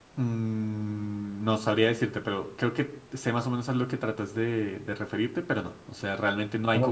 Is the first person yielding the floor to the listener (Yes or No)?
Yes